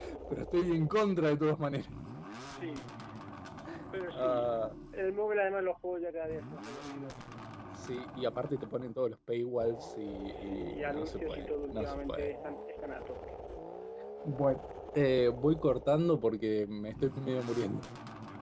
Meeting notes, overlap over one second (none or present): present